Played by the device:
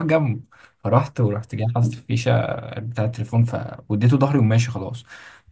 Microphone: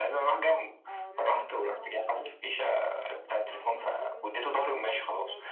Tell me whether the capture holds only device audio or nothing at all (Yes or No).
No